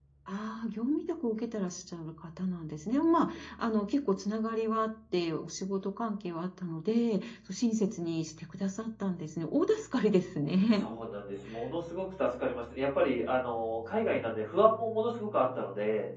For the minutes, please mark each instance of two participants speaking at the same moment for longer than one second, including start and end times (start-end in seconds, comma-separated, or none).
none